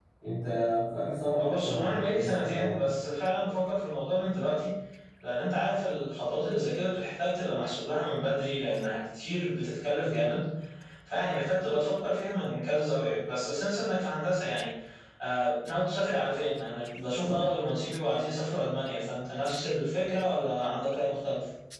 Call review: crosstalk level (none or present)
present